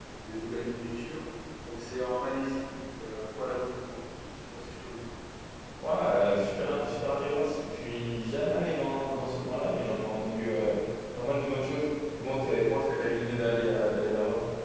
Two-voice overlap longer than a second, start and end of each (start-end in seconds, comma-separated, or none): none